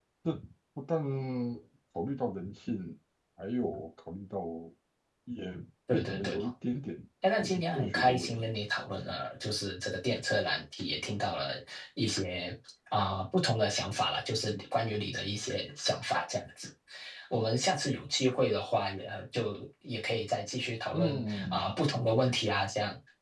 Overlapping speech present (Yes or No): Yes